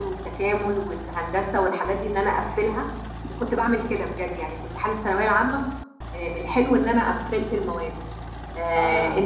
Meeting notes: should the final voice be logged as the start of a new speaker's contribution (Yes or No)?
No